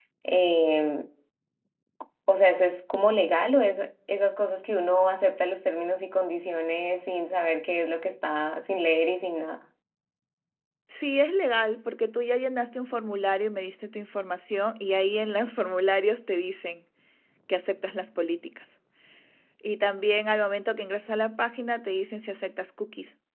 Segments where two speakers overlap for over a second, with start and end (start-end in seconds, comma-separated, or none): none